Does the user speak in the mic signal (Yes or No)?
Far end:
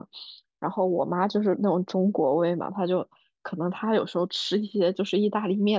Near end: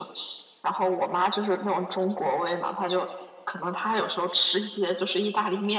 No